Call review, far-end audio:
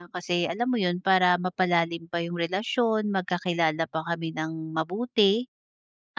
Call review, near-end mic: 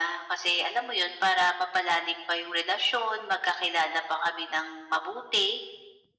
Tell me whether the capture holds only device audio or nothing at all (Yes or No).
Yes